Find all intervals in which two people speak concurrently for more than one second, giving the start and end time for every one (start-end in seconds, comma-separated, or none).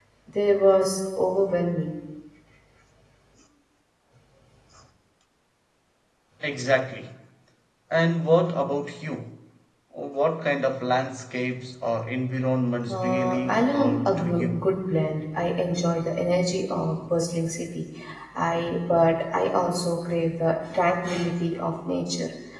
12.9-14.6